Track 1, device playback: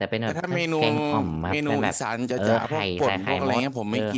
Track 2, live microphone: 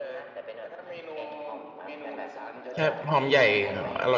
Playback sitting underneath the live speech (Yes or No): Yes